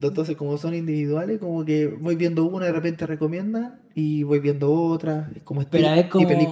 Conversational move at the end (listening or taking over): taking over